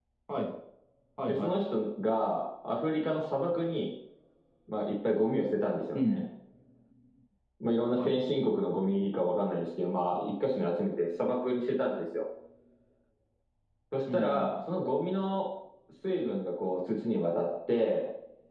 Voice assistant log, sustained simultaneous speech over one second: none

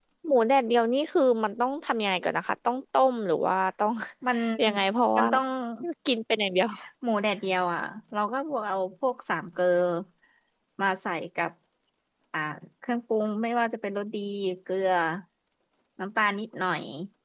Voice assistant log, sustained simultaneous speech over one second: none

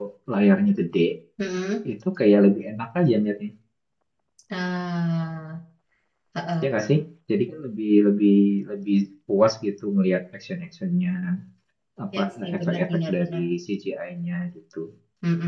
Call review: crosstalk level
present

